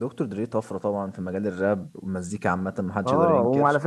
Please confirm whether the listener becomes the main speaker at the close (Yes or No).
Yes